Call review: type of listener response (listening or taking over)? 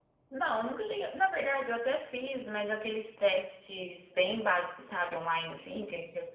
listening